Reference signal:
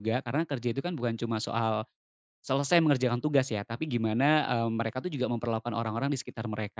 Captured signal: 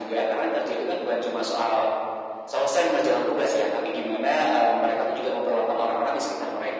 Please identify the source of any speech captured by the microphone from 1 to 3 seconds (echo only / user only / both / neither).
echo only